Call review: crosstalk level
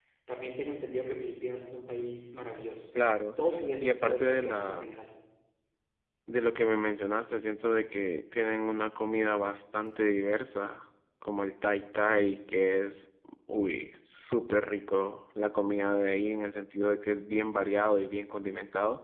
present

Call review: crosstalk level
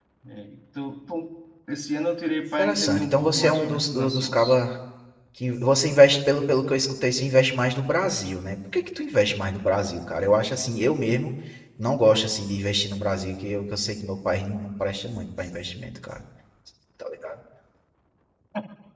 present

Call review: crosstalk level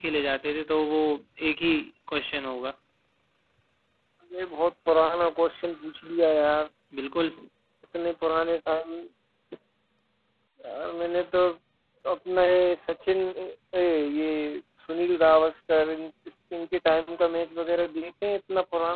none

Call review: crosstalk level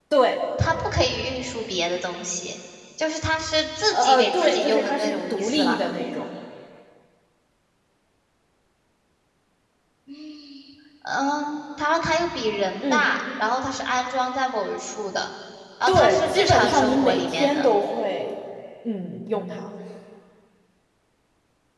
present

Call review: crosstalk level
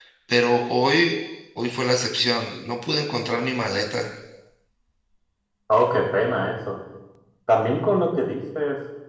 none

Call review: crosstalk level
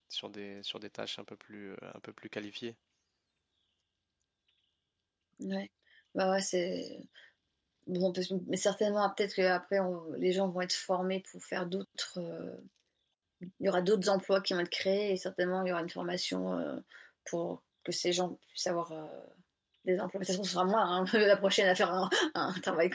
none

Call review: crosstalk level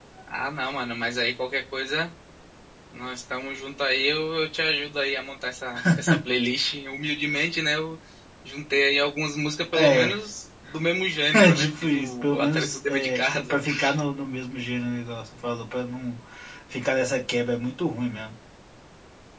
present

